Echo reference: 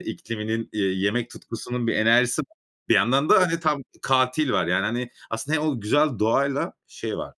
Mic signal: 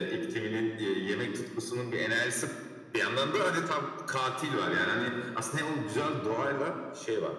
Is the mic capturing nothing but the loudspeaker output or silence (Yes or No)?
Yes